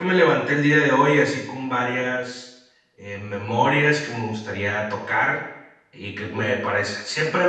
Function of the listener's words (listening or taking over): listening